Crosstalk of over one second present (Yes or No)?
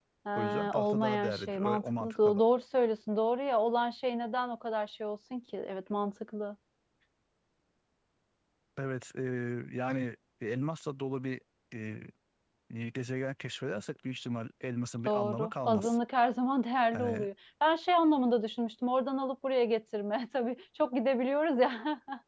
Yes